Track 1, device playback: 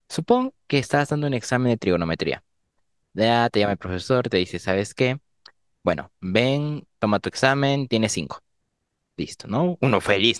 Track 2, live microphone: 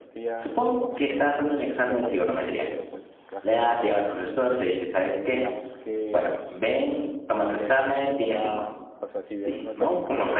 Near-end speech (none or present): present